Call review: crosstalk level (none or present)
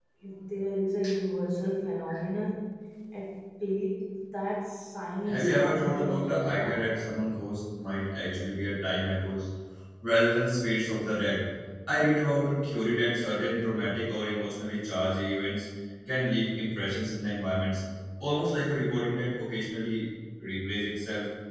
present